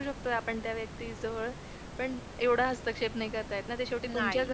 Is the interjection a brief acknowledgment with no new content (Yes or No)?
Yes